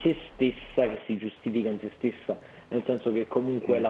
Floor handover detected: No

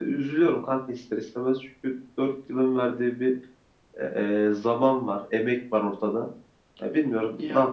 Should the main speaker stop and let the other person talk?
No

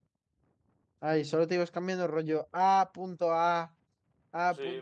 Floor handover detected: Yes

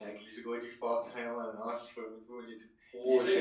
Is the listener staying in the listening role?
Yes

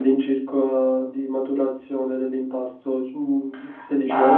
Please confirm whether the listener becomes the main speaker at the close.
Yes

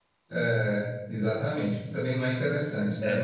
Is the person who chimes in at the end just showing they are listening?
Yes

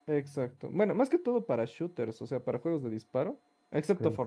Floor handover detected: No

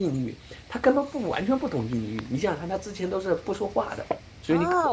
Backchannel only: No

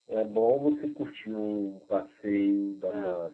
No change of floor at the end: Yes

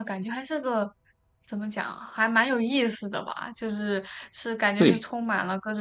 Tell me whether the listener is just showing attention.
Yes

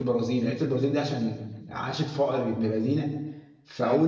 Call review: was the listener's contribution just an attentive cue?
Yes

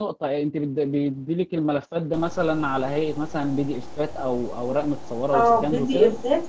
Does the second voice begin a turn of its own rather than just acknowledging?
Yes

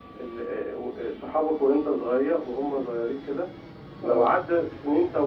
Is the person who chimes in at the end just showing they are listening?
Yes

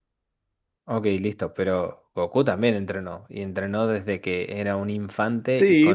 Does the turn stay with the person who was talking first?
No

